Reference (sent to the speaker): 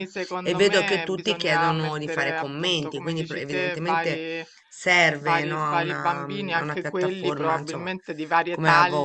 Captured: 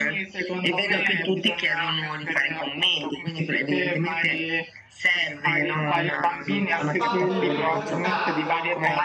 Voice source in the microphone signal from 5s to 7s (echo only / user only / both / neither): both